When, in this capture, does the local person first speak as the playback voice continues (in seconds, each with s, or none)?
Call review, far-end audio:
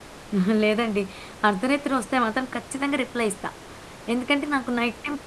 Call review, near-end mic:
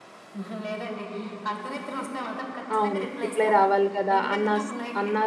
2.8 s